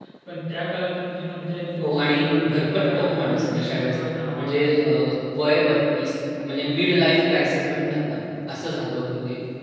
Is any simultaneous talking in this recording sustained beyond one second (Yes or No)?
Yes